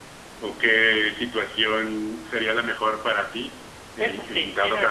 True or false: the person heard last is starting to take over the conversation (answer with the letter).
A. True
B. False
A